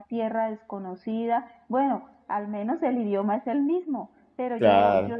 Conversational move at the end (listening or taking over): listening